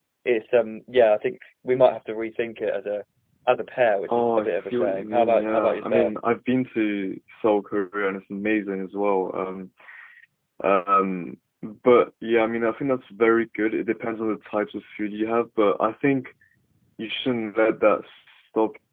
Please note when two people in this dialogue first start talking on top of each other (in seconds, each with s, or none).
4.1 s